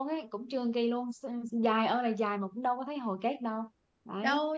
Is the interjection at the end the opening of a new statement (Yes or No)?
Yes